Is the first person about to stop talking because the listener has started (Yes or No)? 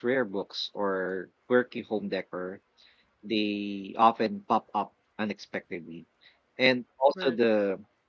No